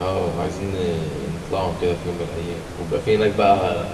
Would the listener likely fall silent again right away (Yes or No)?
Yes